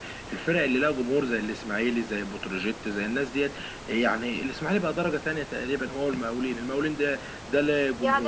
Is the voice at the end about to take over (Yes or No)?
Yes